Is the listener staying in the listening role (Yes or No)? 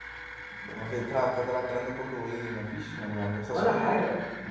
No